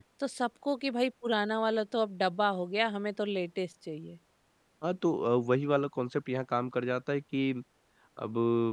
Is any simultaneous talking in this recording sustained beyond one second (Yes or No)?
No